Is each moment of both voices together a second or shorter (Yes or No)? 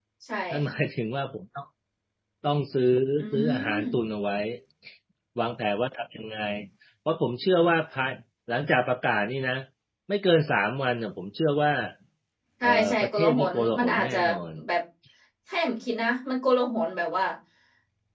No